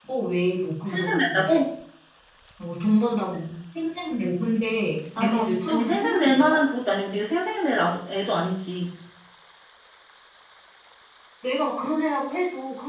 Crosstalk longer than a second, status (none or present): present